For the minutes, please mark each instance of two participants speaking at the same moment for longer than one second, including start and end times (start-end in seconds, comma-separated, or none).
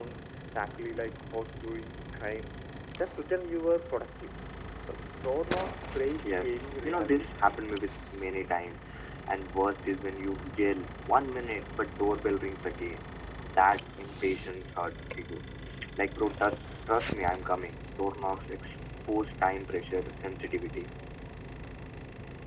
6.4-7.6